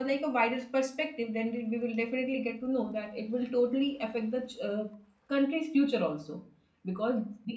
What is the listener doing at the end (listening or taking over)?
listening